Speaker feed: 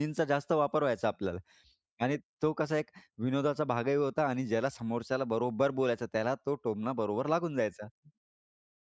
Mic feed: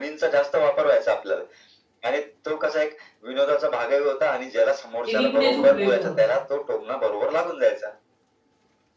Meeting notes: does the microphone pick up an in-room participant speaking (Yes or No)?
Yes